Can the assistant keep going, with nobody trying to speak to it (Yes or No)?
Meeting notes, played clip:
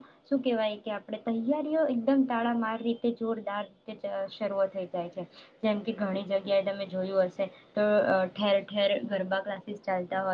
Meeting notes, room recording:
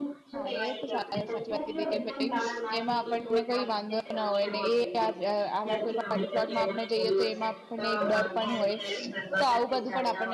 No